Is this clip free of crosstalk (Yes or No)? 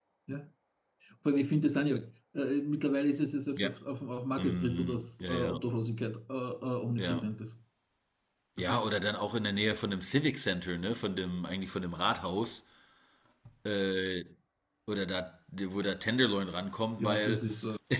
No